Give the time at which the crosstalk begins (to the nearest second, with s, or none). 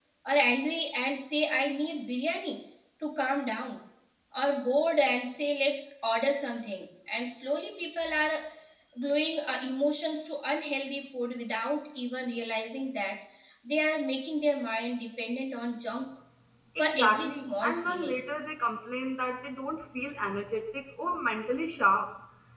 17 s